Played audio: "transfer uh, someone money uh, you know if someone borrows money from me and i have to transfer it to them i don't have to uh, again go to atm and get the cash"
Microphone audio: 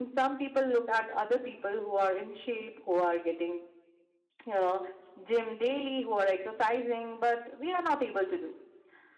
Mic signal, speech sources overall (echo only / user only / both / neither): user only